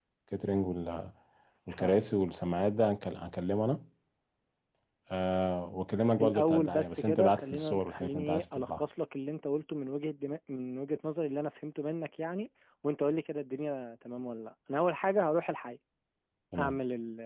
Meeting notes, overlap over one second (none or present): present